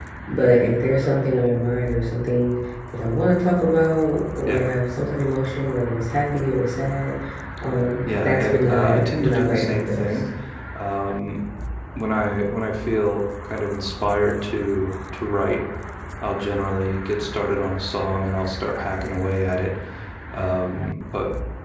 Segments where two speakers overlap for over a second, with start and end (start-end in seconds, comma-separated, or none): 8.1-10.2